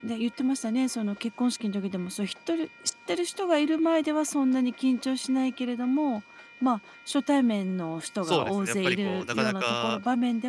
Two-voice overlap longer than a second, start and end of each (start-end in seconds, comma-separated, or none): 8.2-10.0